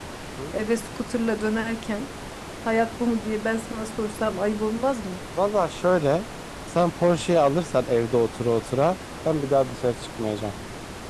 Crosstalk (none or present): none